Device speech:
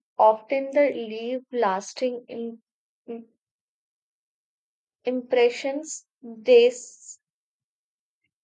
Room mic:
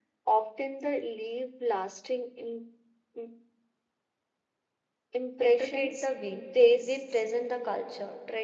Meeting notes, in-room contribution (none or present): present